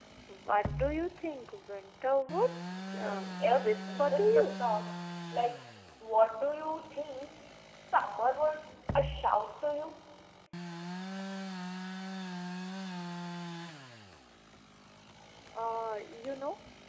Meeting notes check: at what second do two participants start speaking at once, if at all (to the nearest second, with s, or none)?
3 s